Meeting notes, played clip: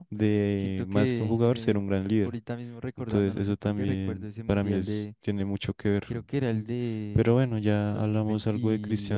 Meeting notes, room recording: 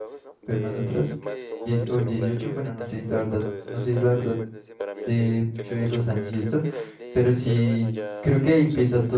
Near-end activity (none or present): present